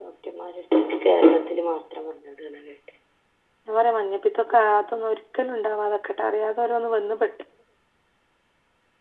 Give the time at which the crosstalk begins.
none

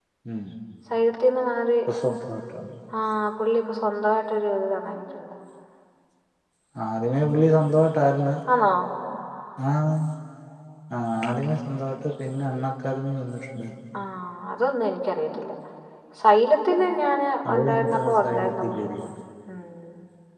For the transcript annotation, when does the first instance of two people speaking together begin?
17 s

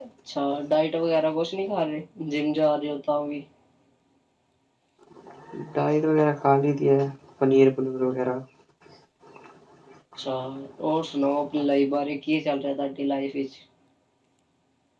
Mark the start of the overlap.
none

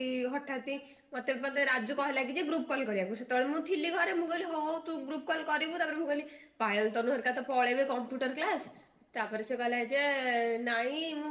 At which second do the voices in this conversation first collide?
none

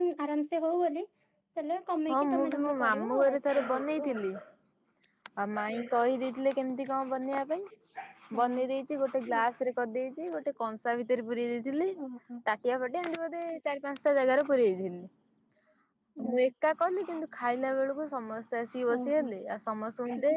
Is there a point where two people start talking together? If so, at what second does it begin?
2 s

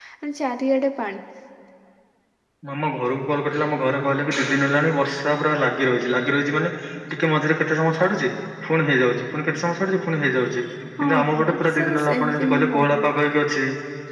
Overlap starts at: 11 s

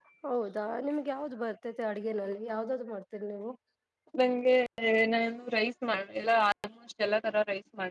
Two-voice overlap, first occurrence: none

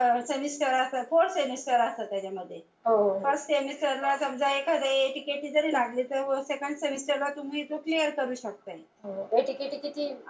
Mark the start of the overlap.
none

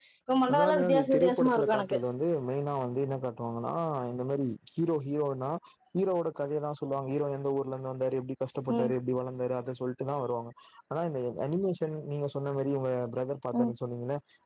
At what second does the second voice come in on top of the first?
1 s

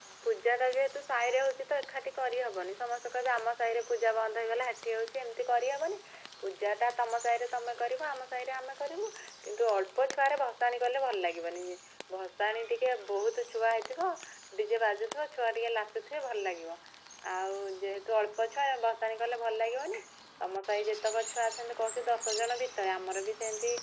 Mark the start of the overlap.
none

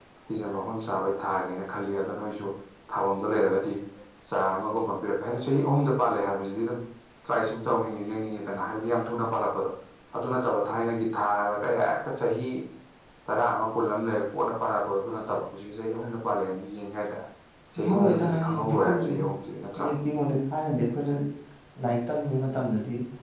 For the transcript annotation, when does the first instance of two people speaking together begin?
18 s

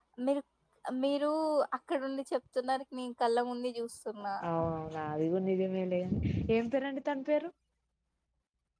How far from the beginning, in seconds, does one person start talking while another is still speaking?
none

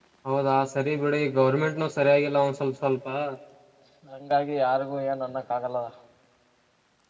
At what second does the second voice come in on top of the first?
none

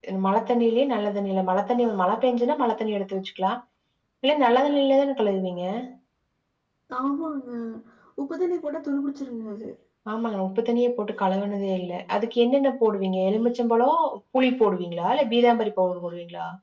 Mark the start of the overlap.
none

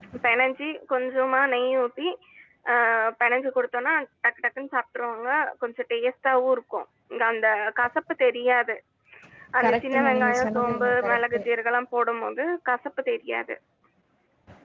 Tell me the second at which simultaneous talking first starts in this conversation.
10 s

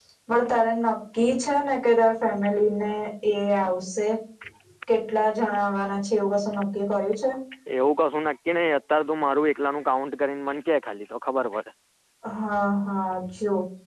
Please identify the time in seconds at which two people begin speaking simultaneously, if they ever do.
none

